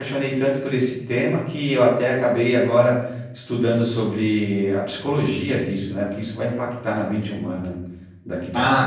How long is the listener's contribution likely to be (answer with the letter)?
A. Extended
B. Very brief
A